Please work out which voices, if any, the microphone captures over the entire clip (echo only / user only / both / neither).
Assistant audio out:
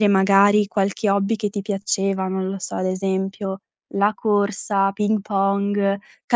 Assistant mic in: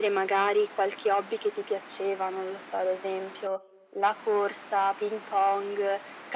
echo only